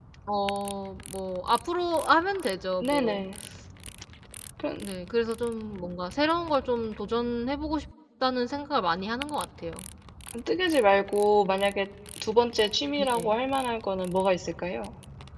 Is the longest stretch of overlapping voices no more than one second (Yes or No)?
Yes